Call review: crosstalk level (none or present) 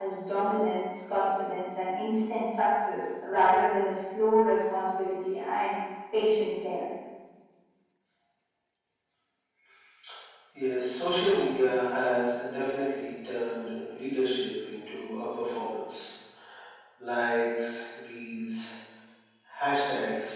none